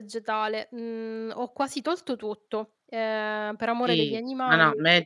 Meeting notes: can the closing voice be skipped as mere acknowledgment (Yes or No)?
No